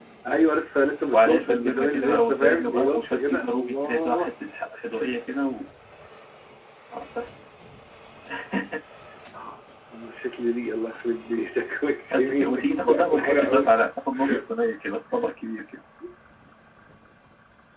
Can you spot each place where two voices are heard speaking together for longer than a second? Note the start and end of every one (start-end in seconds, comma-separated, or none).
1.1-4.3, 12.1-13.7